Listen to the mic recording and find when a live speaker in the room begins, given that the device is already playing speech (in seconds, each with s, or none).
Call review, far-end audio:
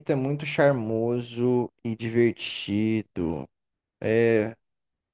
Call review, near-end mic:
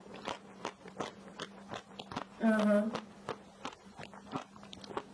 2.4 s